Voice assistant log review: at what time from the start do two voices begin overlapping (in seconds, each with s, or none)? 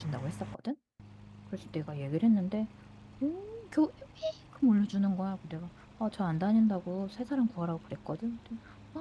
none